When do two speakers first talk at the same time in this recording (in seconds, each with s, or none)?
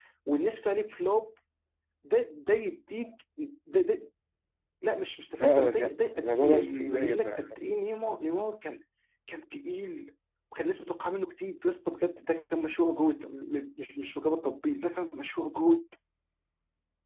5.4 s